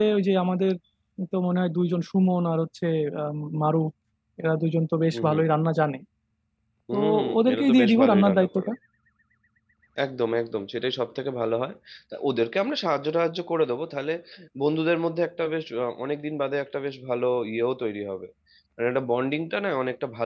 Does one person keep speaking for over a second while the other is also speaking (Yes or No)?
Yes